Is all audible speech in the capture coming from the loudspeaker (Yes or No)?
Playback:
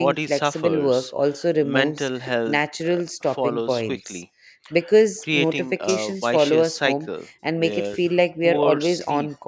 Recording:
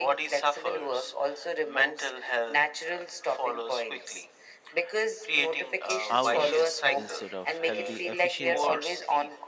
No